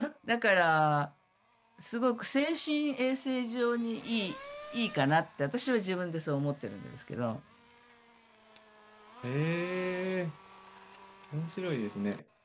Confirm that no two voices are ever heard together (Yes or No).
Yes